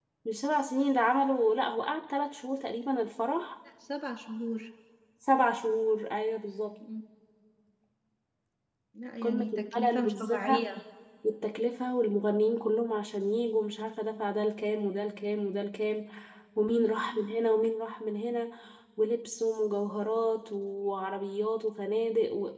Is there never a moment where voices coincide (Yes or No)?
No